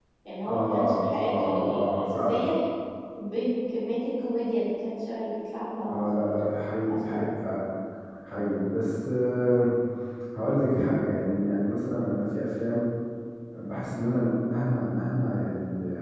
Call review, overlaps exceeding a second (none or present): present